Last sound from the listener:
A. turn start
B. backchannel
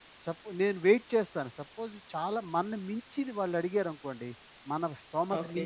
B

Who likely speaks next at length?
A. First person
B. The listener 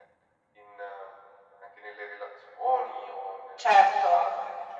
A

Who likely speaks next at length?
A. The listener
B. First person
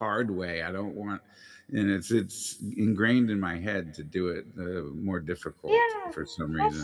A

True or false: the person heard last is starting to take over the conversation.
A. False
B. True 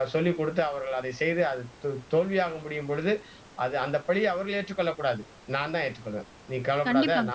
A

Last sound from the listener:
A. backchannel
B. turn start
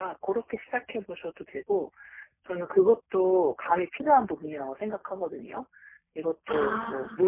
A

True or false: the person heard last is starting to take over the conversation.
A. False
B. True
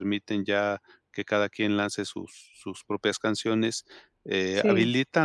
A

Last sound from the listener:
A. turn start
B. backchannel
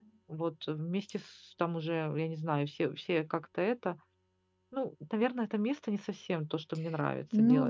A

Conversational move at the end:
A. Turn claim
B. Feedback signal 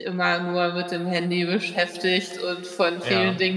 B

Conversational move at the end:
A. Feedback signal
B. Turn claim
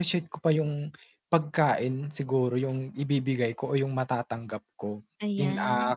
A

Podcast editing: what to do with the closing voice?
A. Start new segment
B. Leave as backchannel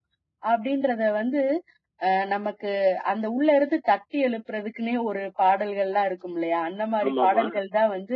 B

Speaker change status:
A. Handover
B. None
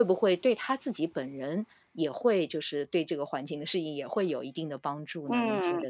A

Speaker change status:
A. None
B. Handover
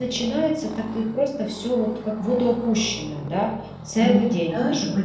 B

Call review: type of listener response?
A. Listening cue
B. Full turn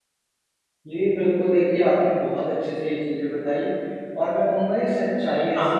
A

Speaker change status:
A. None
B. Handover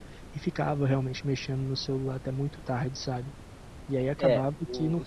B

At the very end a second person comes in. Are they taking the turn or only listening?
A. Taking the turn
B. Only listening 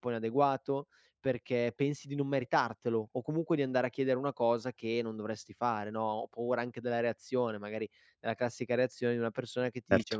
B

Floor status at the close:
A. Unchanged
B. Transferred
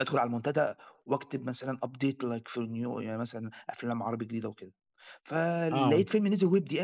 A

